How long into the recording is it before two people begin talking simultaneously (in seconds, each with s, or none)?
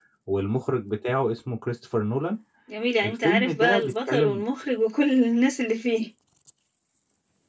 3.0 s